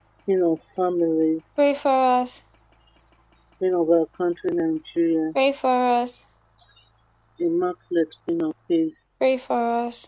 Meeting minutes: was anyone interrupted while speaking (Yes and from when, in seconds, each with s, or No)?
No